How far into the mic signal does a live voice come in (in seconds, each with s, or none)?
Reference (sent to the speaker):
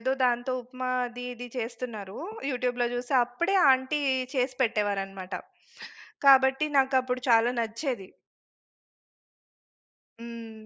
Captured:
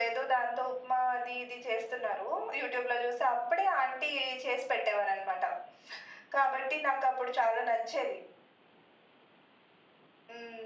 none